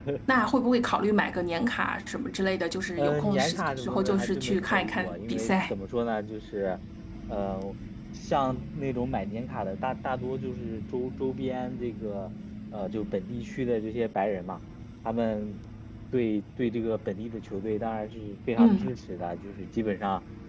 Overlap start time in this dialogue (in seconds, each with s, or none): 3.0 s